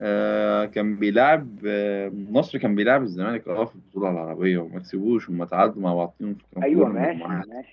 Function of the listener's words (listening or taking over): taking over